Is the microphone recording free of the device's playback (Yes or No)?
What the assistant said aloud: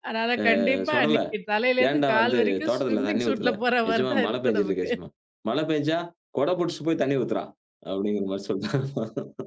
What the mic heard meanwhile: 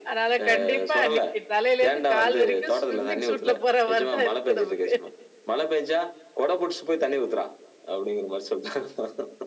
No